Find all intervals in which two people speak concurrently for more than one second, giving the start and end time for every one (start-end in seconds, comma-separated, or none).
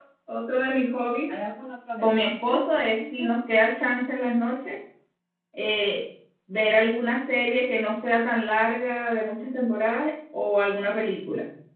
2.0-3.3